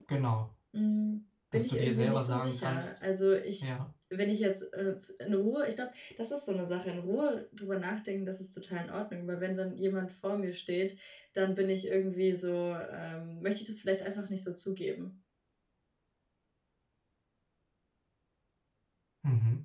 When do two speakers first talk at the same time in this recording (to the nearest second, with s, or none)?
2 s